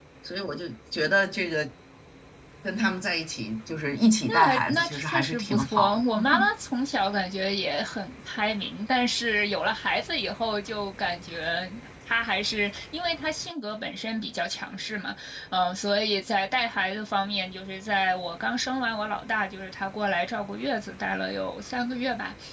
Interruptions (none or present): present